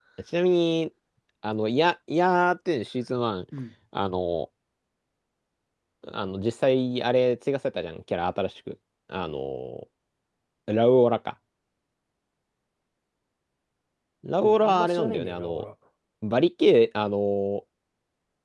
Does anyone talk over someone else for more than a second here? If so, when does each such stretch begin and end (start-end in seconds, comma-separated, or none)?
14.4-15.6